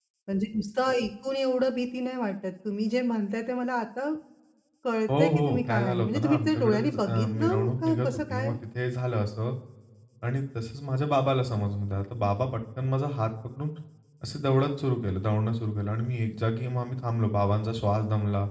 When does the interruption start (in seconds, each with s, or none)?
5.1 s